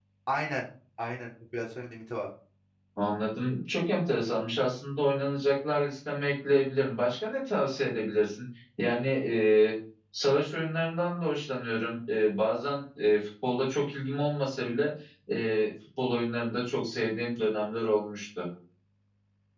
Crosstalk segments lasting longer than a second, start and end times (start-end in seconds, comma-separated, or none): none